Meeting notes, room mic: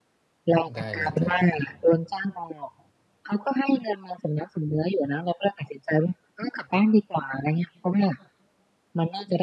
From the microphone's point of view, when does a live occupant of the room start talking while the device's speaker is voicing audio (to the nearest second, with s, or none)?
1 s